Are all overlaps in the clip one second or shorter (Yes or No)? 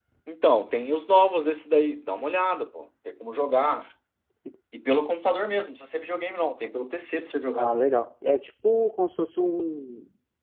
Yes